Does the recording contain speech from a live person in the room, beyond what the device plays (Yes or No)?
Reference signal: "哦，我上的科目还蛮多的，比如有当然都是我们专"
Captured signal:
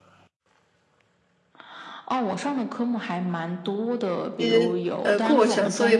Yes